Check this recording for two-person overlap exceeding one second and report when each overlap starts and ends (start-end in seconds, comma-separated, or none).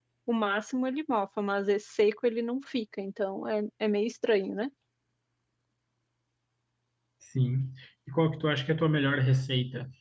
none